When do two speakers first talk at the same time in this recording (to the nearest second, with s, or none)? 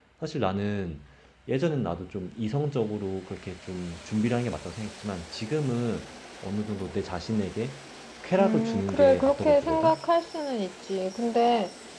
8 s